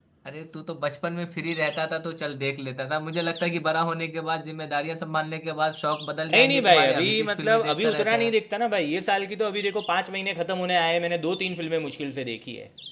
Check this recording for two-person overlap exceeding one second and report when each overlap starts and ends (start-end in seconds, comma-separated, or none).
6.3-8.3